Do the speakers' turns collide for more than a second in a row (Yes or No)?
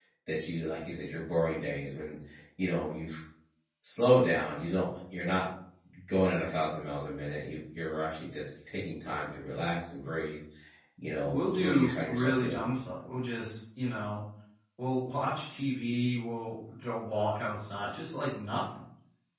Yes